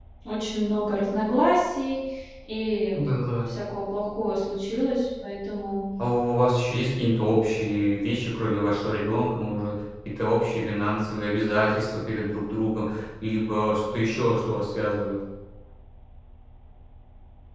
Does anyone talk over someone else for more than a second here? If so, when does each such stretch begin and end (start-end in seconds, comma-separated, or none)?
none